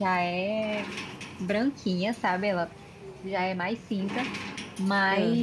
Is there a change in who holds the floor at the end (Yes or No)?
No